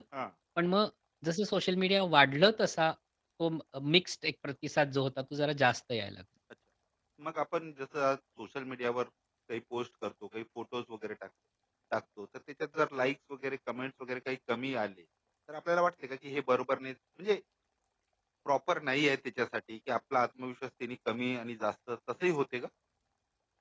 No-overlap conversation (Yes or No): Yes